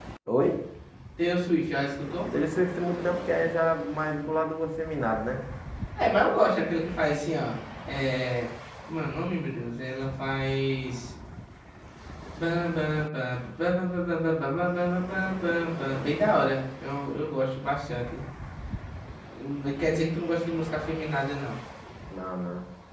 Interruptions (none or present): none